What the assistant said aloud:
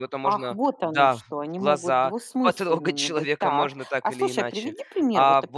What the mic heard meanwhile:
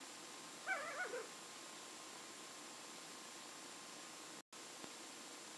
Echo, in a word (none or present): none